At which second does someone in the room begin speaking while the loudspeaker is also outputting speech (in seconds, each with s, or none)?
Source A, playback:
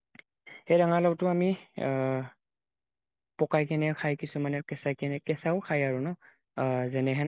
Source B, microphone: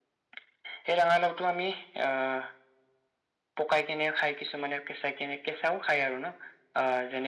none